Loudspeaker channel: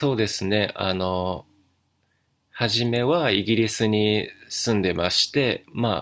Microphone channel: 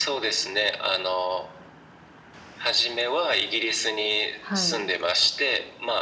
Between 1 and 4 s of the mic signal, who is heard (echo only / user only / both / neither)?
echo only